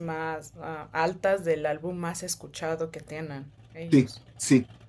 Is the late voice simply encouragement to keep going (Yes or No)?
No